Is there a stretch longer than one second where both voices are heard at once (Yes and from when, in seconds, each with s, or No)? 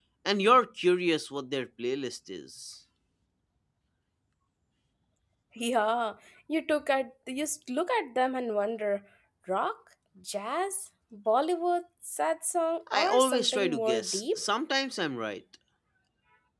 Yes, from 12.9 s